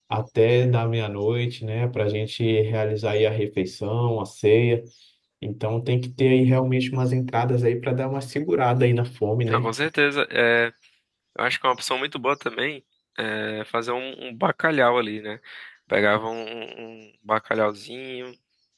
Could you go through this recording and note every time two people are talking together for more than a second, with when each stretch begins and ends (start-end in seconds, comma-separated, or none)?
none